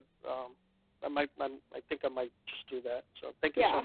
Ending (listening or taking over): taking over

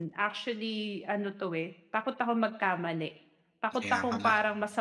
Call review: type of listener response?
listening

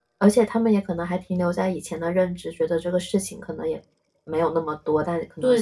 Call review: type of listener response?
listening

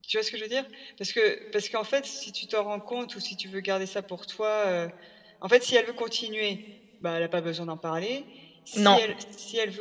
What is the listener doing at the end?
listening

